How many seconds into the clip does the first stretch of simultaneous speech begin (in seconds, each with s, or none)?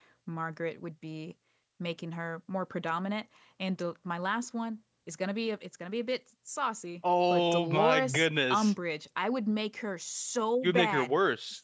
7.3 s